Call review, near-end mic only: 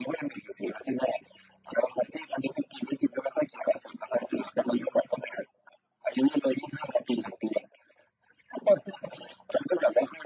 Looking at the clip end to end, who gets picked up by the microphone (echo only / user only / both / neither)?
echo only